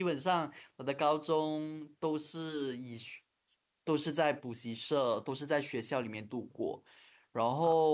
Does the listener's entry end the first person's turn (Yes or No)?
No